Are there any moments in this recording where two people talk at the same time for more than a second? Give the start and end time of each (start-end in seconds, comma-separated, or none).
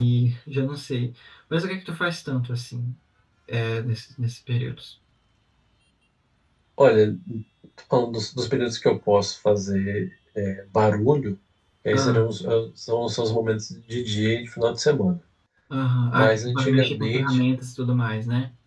16.1-17.4